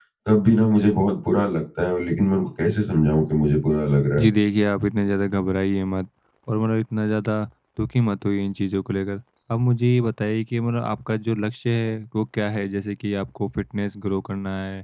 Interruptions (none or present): none